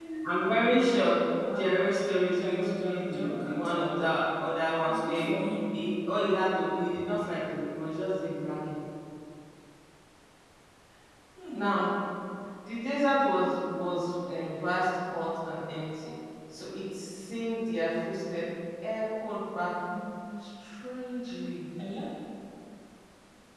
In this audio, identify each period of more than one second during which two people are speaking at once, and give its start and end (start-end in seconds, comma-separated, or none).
1.5-4.0